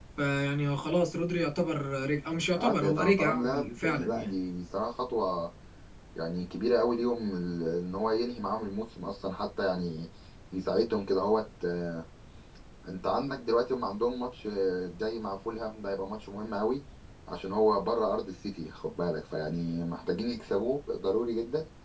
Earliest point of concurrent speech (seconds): 2.6 s

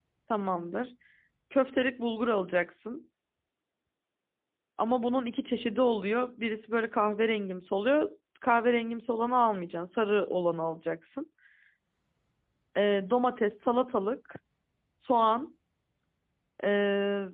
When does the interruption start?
none

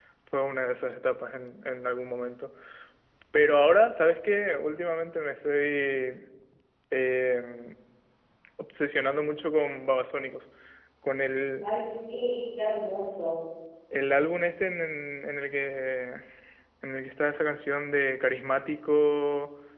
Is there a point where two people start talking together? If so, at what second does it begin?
none

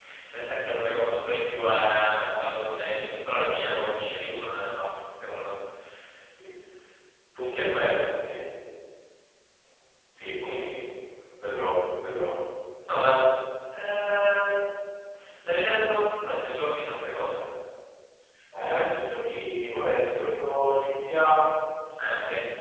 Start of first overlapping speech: none

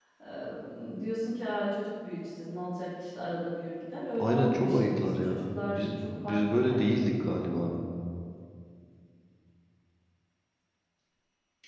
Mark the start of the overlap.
4.2 s

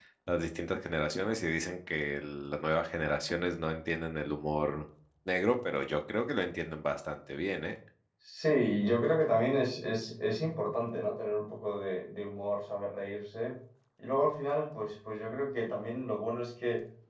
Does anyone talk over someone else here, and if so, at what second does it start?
none

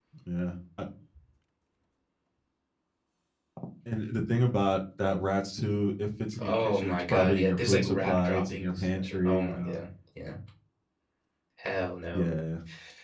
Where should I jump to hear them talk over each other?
6.4 s

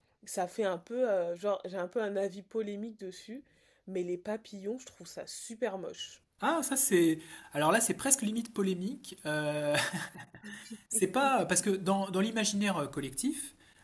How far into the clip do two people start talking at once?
none

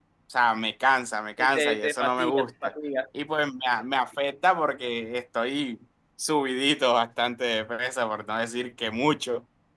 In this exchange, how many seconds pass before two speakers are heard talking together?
1.4 s

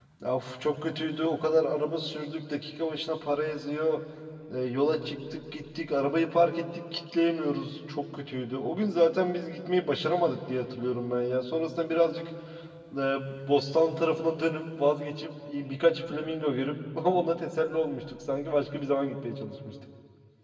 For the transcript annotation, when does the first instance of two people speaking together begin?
none

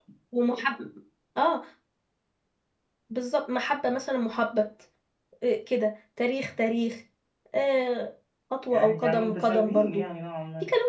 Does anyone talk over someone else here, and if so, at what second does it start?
8.7 s

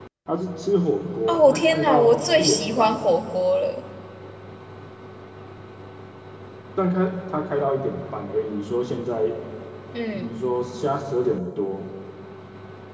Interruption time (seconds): 1.3 s

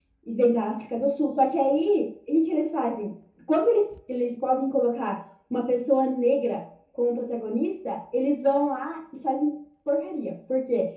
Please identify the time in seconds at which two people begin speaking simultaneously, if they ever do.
none

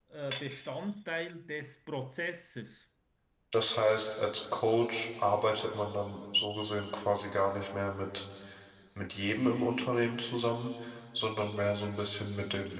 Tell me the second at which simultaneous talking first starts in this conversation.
none

